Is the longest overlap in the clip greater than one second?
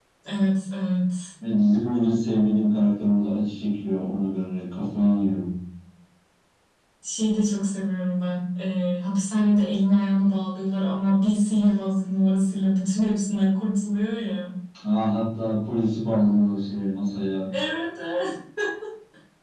No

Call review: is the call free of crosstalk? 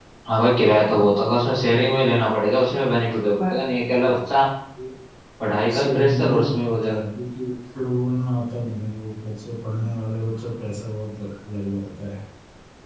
No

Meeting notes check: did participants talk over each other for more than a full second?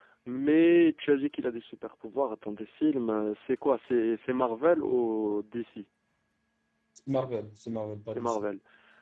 No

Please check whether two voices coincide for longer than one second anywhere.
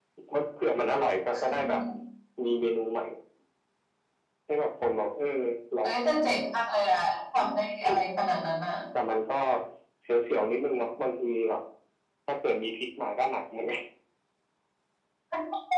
No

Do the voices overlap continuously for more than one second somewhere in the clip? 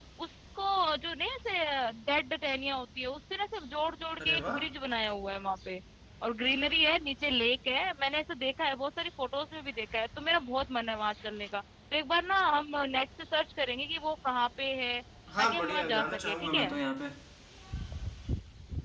Yes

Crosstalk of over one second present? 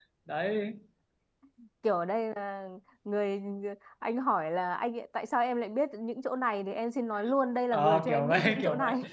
Yes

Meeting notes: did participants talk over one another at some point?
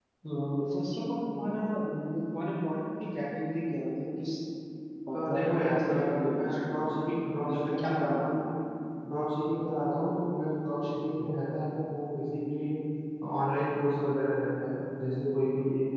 Yes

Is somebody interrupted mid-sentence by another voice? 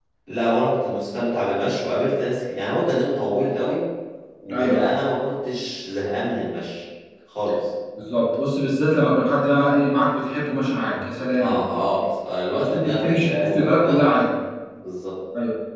Yes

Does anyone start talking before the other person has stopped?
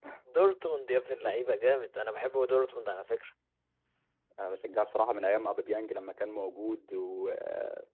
No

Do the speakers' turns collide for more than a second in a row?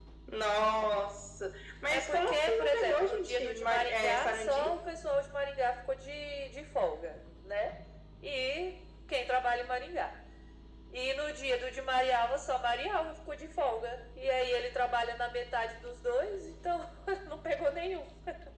Yes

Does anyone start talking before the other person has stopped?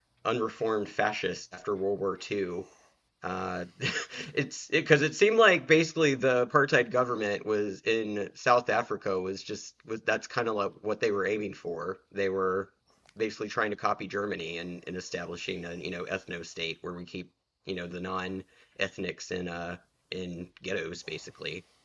No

